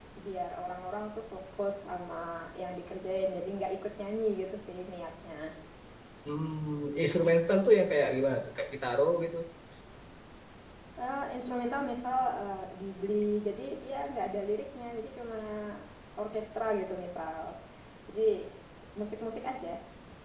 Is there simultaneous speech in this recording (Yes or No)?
No